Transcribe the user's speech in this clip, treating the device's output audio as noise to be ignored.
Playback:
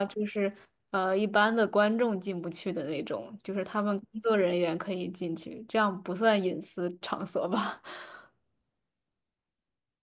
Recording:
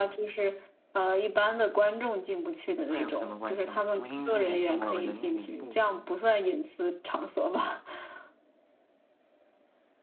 那有什么关系嘛？读心术也是我能力的一部分嘛。

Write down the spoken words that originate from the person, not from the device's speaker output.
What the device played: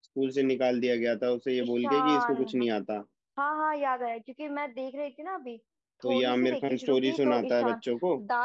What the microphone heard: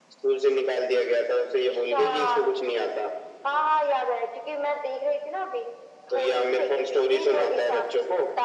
none

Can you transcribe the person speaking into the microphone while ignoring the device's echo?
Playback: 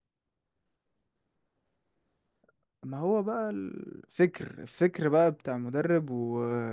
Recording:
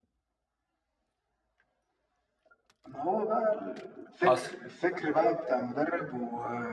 حصل

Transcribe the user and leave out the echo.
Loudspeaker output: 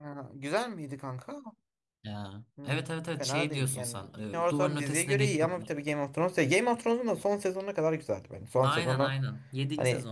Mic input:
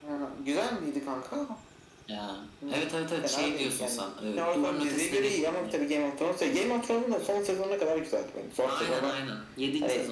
none

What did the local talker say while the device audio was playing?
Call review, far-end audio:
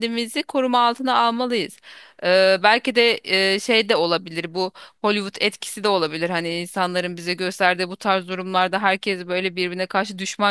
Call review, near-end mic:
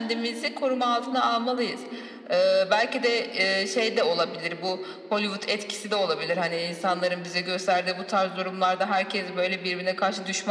none

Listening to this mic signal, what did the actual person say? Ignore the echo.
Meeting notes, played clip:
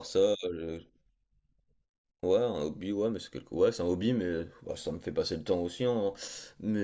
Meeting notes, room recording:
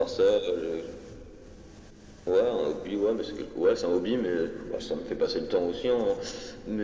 none

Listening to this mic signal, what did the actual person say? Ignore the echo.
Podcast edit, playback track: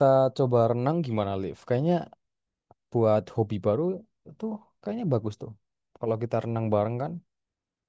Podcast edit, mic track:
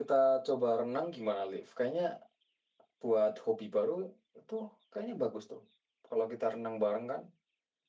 none

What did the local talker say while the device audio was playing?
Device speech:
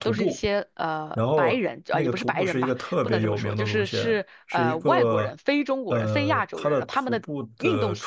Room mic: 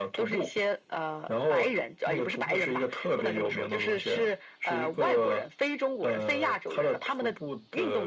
none

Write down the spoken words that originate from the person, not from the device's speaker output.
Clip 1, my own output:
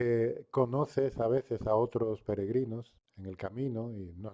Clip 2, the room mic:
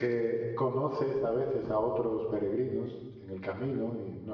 none

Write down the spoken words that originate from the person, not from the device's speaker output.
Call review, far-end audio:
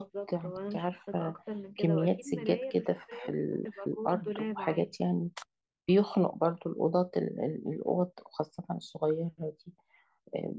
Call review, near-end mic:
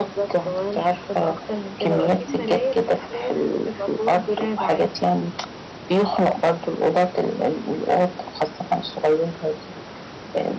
none

